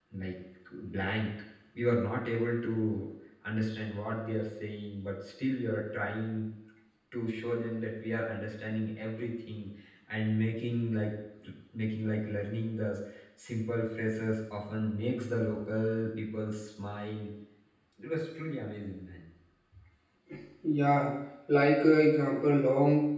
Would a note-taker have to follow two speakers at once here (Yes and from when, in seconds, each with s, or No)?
No